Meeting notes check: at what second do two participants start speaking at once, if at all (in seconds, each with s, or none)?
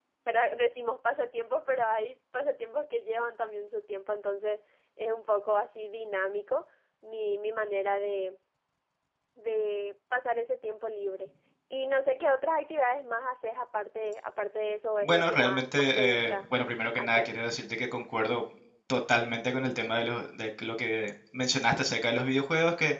15.0 s